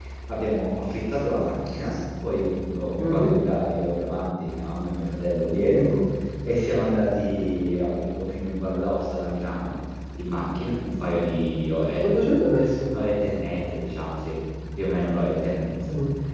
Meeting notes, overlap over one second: none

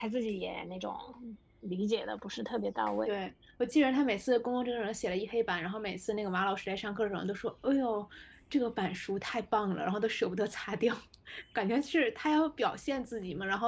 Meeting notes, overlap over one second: none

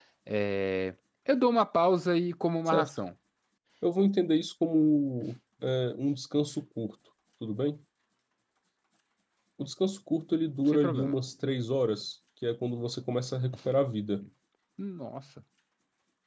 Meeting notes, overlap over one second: none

